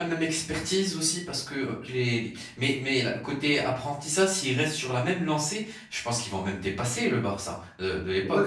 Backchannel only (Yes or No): No